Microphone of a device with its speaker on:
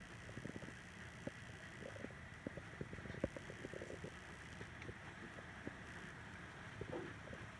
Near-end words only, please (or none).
none